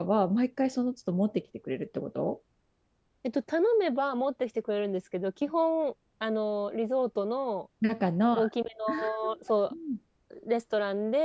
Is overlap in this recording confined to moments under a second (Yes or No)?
Yes